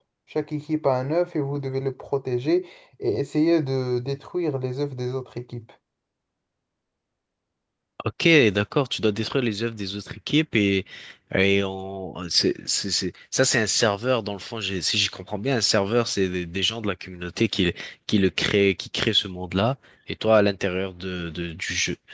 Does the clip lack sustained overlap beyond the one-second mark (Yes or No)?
Yes